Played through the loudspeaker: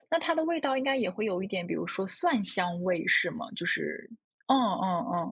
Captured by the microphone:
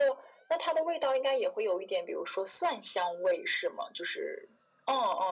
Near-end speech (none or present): none